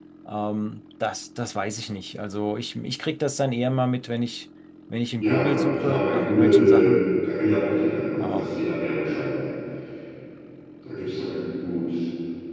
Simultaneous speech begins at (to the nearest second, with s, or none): 5 s